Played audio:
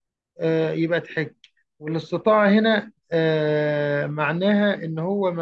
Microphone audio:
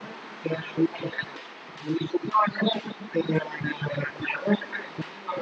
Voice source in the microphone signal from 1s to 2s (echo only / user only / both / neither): echo only